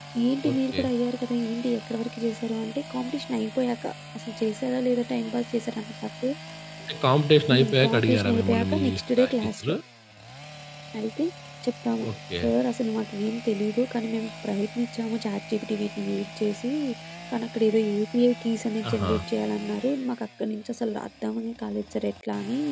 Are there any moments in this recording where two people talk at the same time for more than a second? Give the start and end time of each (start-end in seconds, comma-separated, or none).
7.5-9.7